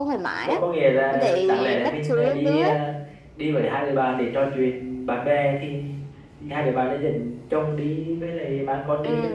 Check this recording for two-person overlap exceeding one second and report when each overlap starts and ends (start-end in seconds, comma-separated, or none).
1.1-2.7